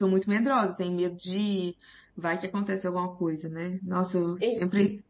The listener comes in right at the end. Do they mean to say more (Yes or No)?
No